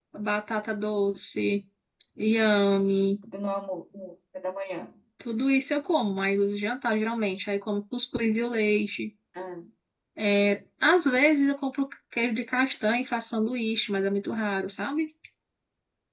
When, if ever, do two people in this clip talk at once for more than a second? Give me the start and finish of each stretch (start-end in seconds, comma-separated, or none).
none